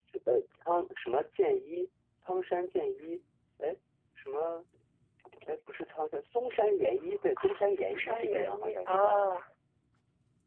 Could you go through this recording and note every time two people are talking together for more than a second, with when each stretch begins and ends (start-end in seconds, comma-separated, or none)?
7.7-9.2